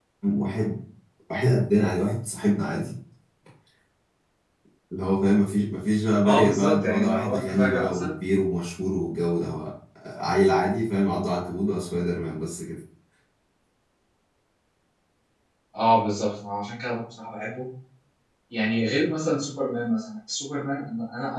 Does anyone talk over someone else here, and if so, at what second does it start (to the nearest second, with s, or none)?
6 s